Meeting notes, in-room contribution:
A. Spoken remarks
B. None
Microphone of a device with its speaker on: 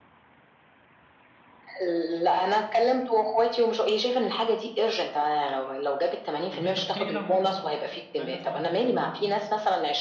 A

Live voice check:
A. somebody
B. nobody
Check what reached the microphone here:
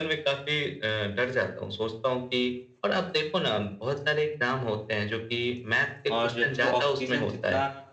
A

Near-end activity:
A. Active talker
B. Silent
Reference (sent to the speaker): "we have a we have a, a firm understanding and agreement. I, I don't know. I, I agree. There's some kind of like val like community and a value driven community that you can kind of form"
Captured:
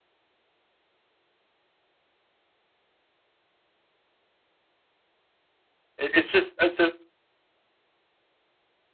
A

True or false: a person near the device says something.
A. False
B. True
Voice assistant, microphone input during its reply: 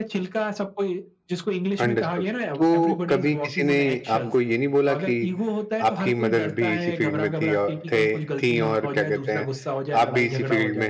B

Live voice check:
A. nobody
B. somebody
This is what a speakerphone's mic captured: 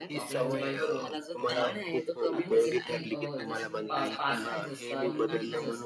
B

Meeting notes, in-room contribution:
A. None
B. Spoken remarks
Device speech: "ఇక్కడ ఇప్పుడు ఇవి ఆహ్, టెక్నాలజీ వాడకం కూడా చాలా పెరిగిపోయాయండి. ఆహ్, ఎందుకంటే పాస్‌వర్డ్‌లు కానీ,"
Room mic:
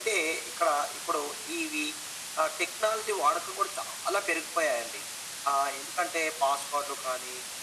A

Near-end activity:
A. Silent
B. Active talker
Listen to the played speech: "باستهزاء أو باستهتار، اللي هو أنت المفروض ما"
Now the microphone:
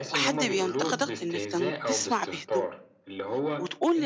B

